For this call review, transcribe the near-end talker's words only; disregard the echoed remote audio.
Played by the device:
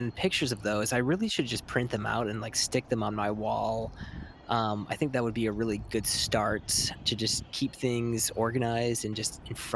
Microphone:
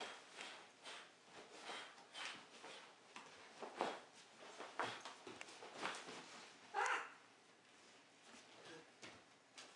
none

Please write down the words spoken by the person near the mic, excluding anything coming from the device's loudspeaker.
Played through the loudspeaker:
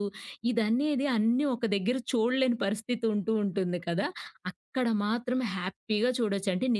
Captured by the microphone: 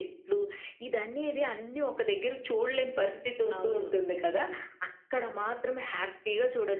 అవును.

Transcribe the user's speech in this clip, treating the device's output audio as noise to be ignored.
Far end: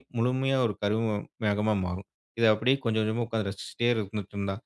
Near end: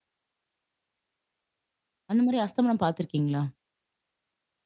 அந்த மாரி அஸ்தமனம் பார்த்துருக்கீங்களா?

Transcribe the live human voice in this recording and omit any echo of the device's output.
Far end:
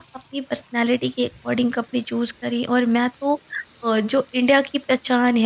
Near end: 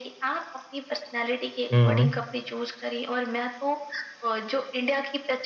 हुँ, हुँ,

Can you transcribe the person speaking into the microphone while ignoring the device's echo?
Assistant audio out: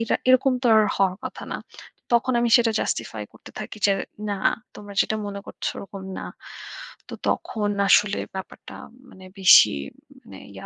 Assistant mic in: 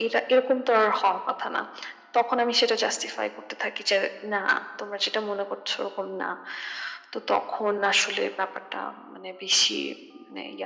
none

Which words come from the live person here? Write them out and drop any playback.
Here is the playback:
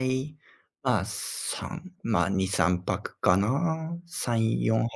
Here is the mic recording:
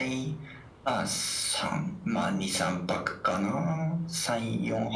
none

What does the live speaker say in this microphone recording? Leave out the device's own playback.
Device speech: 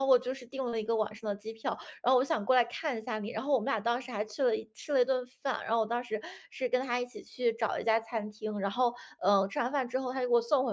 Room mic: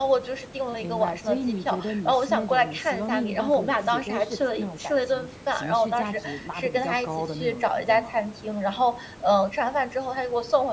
明白，所以你觉得你是那种你希望另一半和你自己都是那种感情、情绪价值拉的比较高的那种人，对吗？

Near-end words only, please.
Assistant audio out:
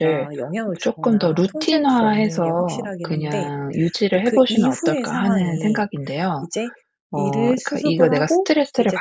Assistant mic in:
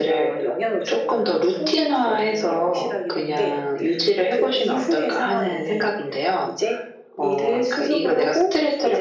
none

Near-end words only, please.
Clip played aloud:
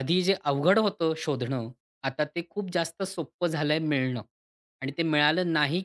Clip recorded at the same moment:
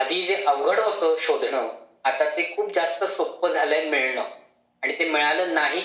none

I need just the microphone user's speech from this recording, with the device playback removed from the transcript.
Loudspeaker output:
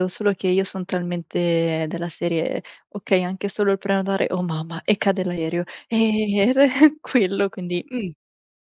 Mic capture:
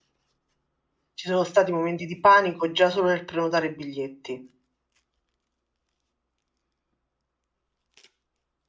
Ci sono stati momenti di panico già solo nel prenotare i biglietti.

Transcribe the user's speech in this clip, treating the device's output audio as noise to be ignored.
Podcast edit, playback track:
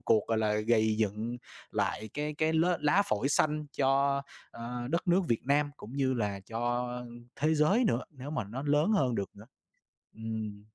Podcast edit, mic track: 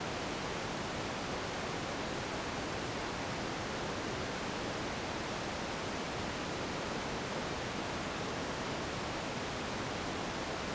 none

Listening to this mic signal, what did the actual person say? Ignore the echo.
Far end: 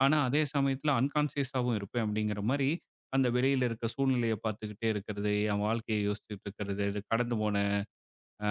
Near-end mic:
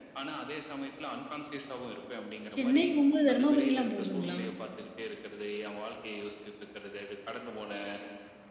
சென்னை போகும்போது தர்மபுரிலாம் போகுதுங்களா?

